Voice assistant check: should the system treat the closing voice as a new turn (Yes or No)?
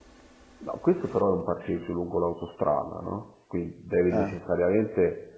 No